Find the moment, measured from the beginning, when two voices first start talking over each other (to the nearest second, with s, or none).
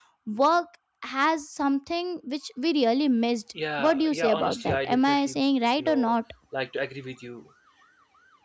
4 s